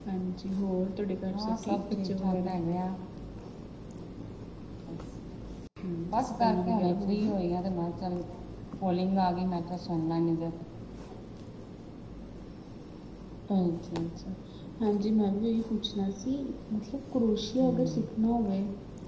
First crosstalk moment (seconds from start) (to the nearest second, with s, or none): 1 s